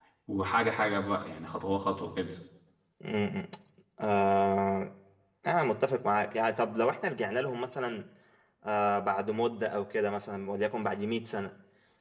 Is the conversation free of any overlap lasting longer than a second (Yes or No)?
Yes